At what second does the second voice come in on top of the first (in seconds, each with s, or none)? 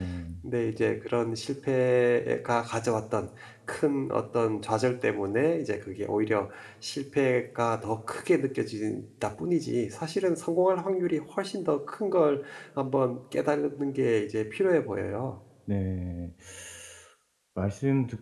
none